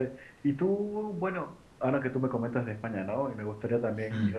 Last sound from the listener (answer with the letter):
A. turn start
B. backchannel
B